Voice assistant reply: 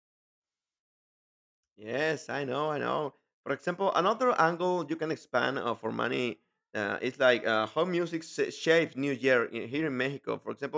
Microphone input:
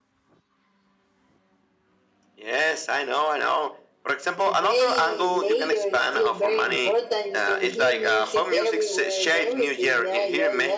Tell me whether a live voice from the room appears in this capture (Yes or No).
Yes